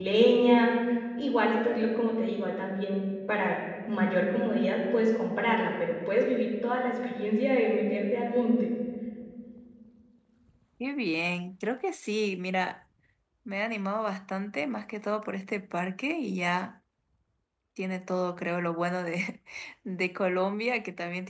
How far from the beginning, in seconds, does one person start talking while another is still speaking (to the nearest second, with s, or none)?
none